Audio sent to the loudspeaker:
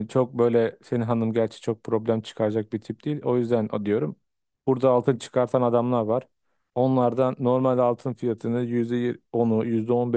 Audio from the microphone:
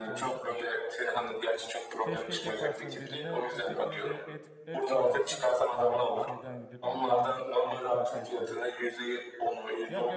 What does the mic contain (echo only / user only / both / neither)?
both